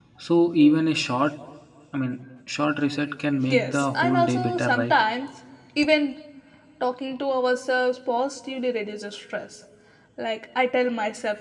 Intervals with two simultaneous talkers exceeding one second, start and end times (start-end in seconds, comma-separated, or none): 3.5-4.9